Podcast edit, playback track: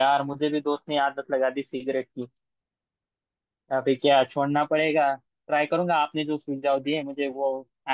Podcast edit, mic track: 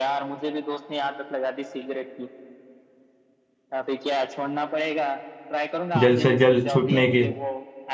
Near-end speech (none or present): present